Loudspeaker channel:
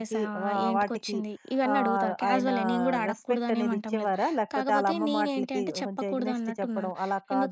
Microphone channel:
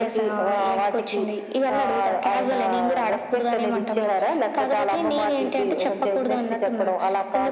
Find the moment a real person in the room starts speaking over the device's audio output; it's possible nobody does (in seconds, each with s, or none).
none